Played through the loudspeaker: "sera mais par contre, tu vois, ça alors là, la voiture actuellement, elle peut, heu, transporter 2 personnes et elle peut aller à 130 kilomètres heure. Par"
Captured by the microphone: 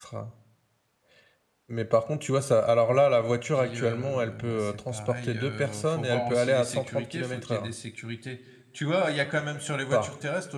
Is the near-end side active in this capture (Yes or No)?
Yes